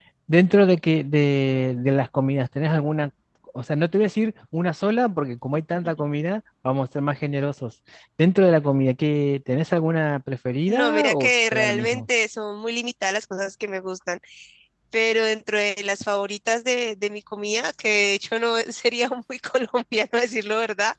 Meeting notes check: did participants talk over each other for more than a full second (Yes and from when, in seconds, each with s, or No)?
Yes, from 10.7 s